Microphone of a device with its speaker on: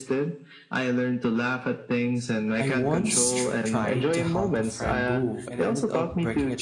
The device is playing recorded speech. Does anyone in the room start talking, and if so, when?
2.6 s

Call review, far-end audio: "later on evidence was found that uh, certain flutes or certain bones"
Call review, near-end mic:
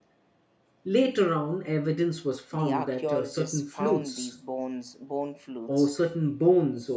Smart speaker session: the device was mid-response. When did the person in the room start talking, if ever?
2.5 s

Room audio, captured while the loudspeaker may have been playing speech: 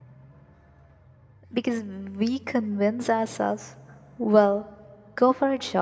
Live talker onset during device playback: 1.5 s

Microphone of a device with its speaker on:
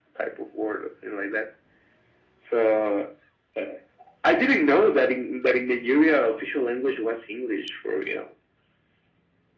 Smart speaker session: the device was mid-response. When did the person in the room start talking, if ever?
none

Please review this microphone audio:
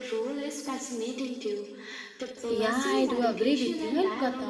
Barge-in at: 2.5 s

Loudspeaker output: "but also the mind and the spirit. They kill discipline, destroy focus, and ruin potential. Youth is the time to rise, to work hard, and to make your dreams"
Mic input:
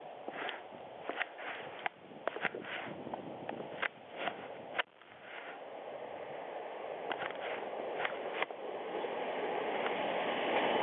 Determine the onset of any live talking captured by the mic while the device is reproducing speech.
none

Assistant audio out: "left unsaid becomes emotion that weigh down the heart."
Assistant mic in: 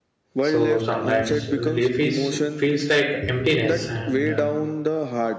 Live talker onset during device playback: 0.4 s

